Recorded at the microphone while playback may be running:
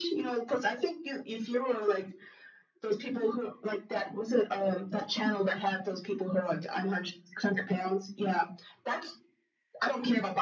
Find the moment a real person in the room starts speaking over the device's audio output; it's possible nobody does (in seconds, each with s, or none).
none